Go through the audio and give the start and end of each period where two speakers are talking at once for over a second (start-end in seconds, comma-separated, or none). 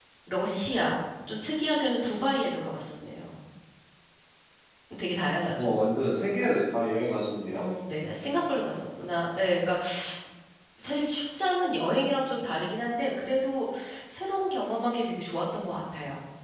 none